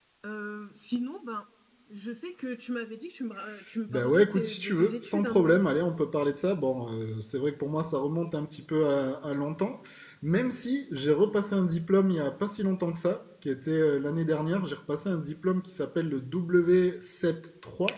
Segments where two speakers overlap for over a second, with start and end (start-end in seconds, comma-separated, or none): 3.9-5.6